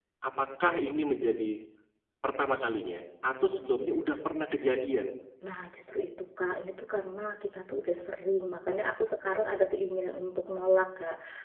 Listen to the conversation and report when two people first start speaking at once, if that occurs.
none

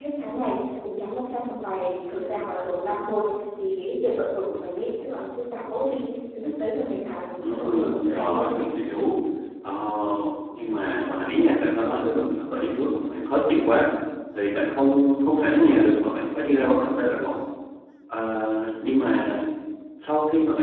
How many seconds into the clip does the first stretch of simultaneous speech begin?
7.4 s

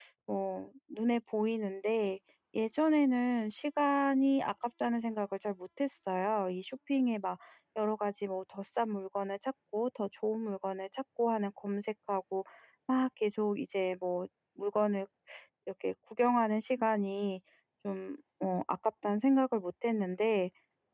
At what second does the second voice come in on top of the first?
none

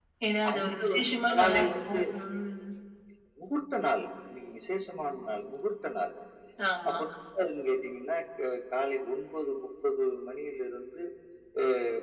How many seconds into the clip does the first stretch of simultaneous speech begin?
0.5 s

